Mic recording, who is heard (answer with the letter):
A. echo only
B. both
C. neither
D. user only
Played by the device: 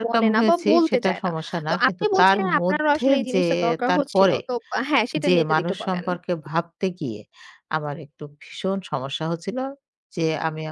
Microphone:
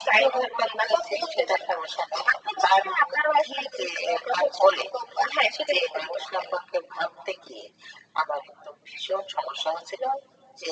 A